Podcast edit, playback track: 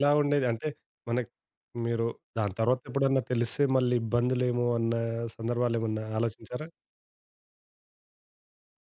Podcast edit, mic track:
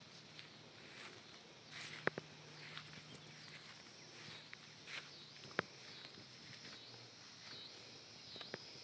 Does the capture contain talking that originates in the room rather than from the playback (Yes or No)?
No